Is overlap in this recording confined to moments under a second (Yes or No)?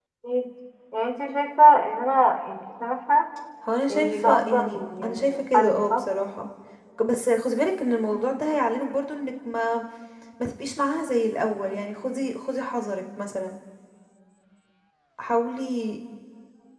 No